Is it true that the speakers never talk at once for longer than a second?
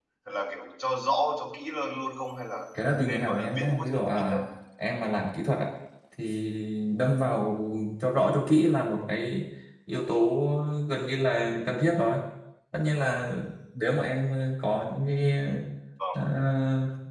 No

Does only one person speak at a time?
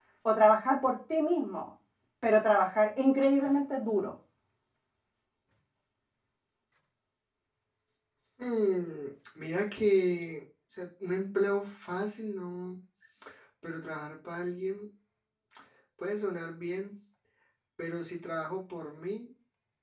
Yes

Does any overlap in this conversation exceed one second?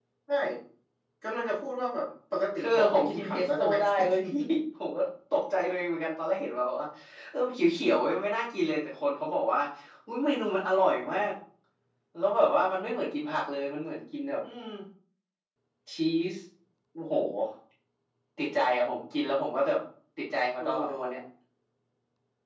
Yes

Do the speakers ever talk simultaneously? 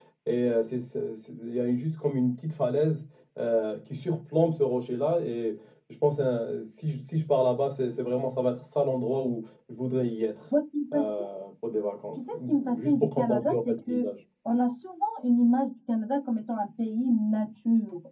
Yes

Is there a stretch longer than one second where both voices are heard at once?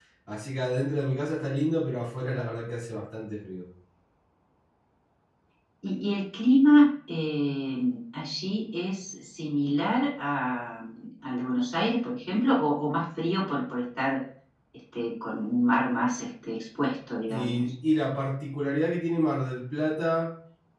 No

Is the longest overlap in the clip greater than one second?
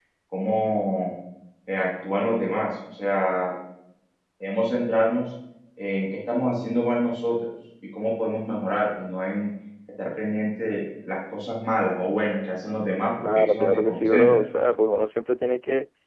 Yes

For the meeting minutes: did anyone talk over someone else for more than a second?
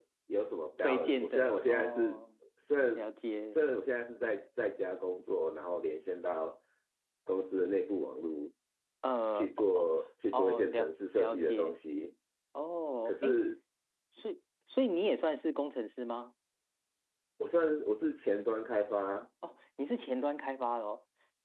Yes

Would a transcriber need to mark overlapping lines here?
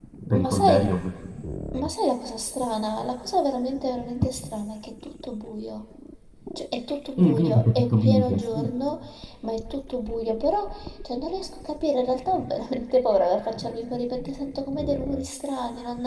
Yes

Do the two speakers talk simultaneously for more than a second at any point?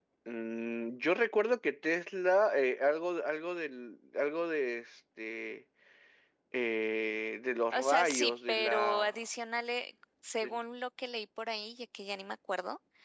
Yes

